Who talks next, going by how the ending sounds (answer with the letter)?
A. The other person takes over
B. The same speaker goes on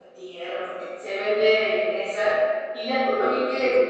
B